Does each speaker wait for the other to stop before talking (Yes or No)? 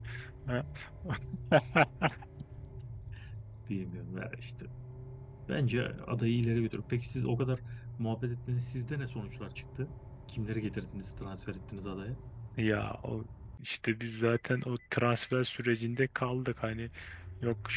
Yes